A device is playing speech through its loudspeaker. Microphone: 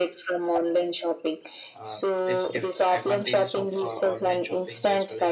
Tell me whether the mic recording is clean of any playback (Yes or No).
No